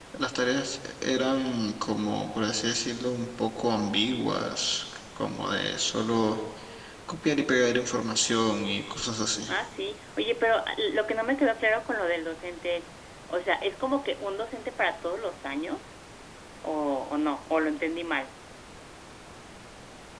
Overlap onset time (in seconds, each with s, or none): none